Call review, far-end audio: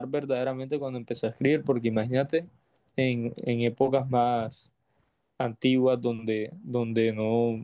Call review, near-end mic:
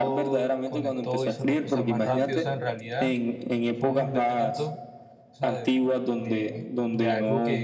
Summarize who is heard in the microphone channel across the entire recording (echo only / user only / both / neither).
both